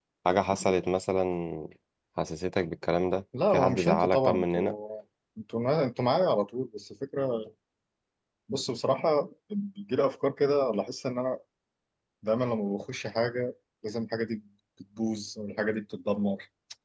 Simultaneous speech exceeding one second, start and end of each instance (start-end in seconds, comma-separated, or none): 3.5-4.7